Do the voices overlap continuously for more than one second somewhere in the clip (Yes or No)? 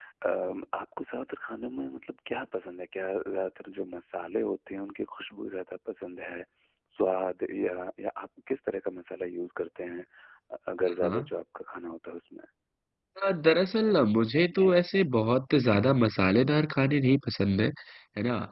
No